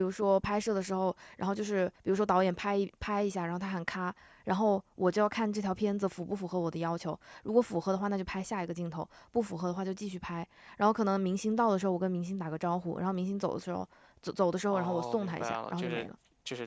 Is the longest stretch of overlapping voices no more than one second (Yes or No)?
No